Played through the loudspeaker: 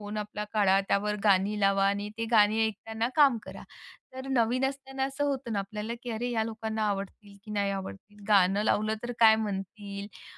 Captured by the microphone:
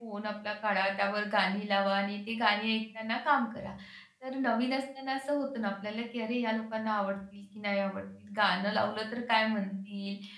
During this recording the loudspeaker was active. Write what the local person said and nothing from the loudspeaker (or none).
none